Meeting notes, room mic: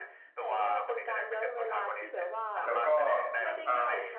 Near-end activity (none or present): present